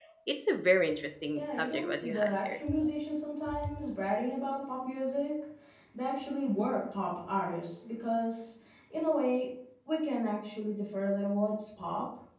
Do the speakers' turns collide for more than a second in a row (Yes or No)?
Yes